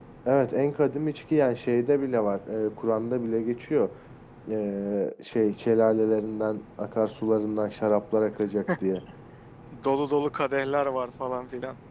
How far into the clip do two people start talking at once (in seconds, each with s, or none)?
none